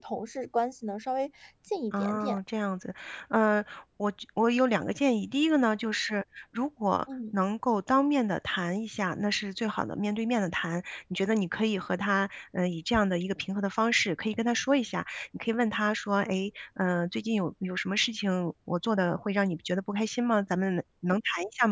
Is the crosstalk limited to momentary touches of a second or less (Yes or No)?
Yes